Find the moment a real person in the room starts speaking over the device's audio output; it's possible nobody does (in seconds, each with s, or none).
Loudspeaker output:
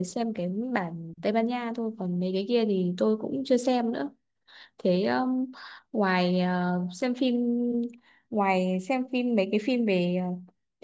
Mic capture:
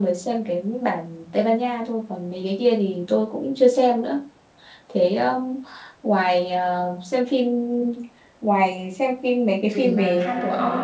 9.6 s